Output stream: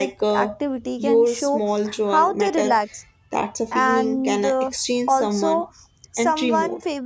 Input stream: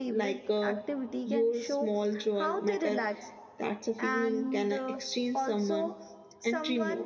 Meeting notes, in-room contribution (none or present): none